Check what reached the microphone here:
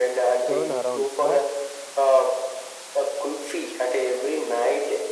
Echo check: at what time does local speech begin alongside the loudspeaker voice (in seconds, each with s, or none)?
0.5 s